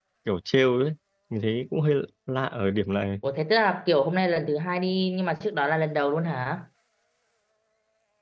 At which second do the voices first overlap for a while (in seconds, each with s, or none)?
none